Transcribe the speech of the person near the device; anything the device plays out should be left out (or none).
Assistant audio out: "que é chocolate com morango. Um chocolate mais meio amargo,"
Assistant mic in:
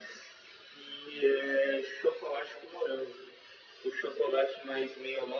none